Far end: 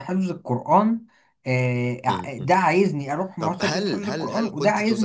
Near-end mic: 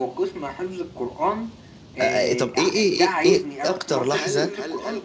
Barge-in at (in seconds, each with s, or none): 2.0 s